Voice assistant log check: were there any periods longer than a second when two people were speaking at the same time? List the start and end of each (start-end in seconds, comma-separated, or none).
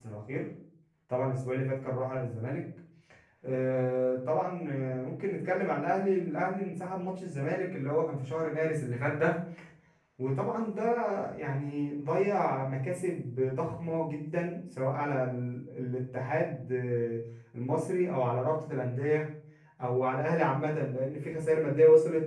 none